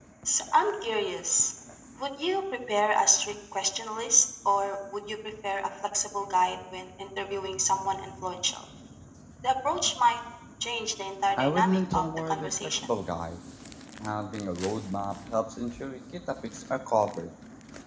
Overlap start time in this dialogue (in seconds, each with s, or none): 11.4 s